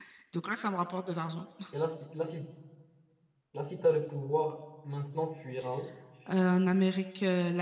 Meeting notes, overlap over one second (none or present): none